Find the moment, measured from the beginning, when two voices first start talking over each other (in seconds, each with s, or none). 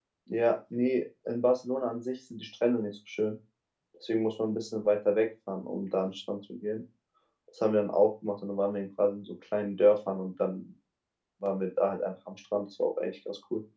none